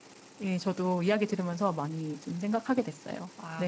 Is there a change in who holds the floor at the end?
Yes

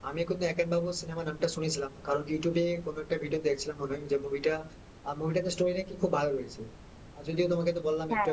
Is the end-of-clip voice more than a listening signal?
No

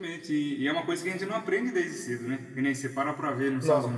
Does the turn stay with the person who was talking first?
Yes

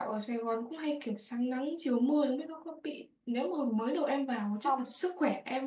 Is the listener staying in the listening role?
Yes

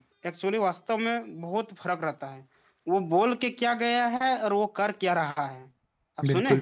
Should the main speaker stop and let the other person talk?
Yes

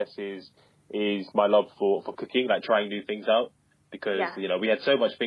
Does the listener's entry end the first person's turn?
No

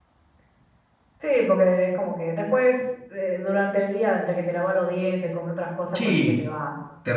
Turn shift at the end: Yes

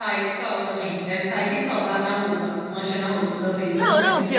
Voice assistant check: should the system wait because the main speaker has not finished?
No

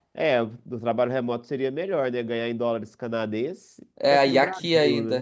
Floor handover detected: Yes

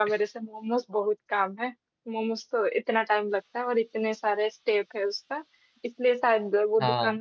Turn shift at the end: No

